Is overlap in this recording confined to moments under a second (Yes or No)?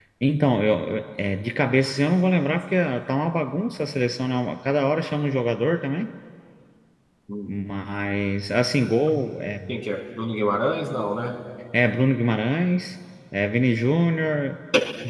Yes